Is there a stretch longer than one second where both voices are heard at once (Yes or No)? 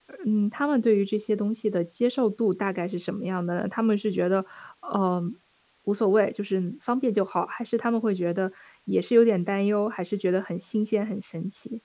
No